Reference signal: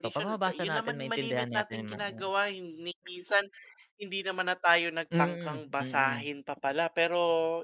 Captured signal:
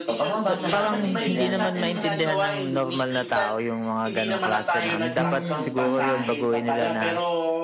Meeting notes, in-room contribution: present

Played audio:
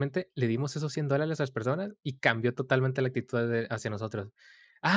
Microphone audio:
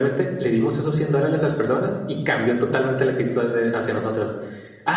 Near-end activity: none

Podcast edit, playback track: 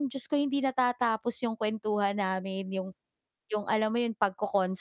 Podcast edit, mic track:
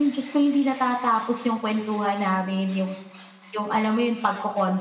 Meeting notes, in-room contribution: none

